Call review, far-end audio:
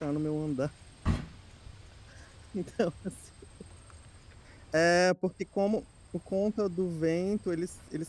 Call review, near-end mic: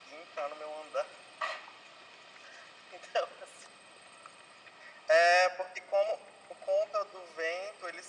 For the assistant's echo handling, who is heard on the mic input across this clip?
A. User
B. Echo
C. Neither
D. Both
B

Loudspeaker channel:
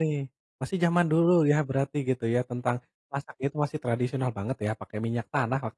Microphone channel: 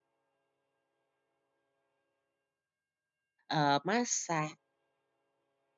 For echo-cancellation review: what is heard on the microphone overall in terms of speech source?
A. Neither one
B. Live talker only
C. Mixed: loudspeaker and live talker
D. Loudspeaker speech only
B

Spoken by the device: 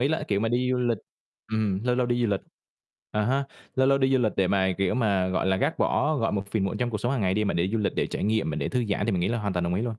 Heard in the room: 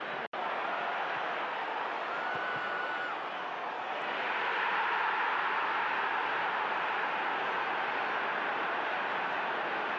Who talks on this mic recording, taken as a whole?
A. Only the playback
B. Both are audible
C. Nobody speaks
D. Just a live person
C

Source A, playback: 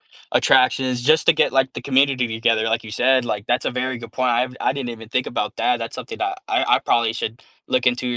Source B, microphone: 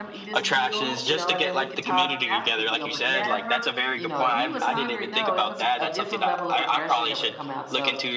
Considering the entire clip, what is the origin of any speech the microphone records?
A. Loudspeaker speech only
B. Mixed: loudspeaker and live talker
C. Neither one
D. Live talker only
B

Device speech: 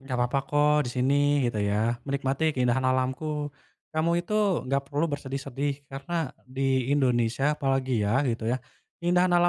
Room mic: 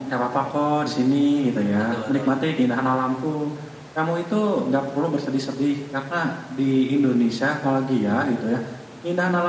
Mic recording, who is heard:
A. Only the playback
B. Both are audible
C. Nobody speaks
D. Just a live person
B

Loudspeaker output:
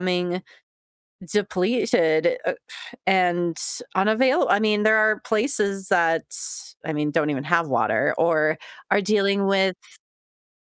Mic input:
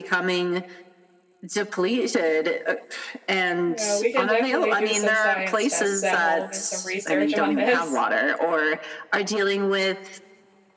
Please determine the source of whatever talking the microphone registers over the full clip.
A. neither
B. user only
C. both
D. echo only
C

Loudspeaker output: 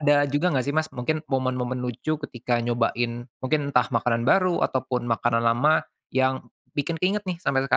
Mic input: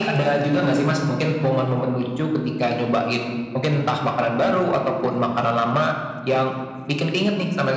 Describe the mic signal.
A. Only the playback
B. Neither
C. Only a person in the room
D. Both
A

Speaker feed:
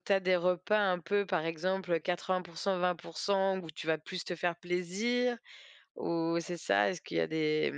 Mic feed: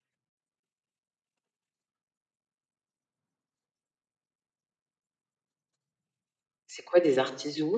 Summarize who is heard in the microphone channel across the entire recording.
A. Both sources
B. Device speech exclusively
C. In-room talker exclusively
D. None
C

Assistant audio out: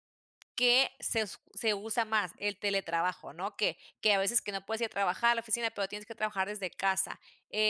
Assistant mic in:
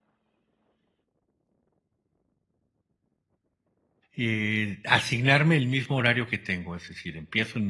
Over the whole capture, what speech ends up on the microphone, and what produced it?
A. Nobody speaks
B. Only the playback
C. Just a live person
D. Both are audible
C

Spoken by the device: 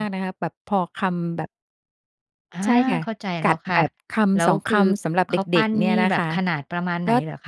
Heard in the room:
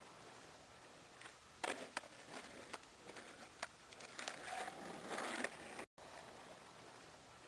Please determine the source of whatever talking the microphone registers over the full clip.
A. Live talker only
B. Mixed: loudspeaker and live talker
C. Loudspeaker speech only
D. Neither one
D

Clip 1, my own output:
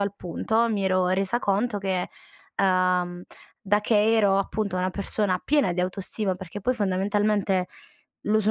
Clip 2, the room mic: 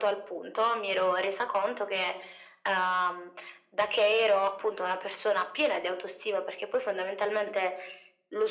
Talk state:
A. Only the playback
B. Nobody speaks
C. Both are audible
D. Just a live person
A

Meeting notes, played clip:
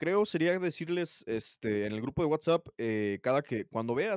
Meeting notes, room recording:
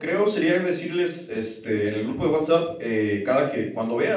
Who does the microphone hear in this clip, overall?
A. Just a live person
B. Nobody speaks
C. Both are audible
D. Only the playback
D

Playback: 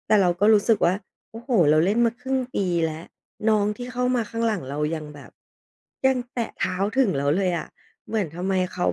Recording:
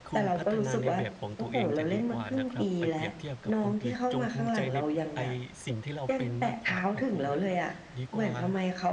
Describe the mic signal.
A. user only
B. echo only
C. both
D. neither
C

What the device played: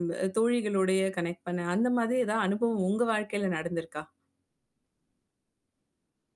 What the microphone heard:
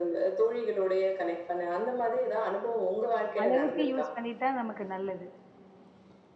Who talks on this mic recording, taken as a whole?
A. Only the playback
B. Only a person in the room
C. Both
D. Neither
C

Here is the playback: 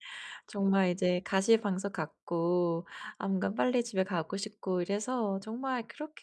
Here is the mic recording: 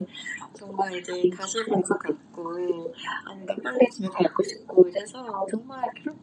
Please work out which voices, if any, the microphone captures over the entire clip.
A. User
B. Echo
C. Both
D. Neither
B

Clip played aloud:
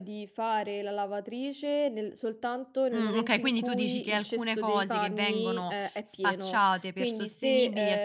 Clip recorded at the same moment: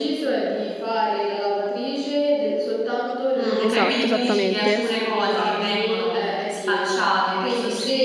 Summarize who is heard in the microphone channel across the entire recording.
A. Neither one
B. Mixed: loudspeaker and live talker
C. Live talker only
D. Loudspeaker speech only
B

